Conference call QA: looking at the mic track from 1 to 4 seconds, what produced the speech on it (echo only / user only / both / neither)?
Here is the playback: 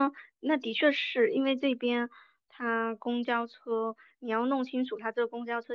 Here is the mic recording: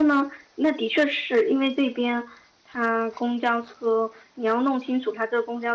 echo only